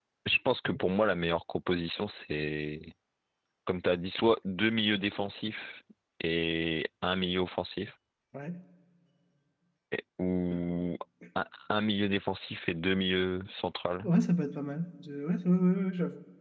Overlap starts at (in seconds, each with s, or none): none